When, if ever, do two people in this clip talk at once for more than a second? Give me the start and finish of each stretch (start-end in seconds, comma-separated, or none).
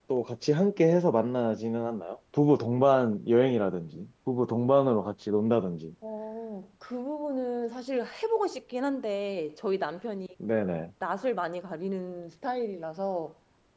none